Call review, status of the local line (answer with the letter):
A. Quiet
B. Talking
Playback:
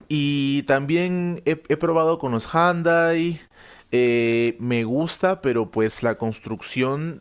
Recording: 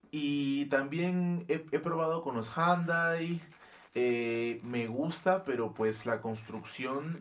A